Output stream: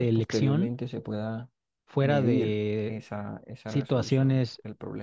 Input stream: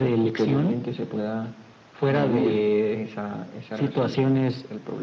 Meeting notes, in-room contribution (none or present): none